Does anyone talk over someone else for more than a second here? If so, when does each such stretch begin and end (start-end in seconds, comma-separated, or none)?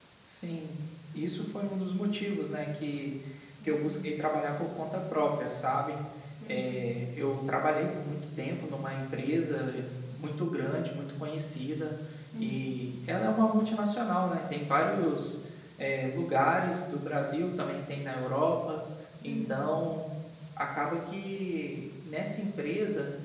none